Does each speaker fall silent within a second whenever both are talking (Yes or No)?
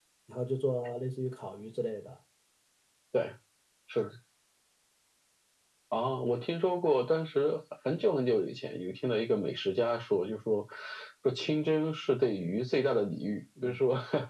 Yes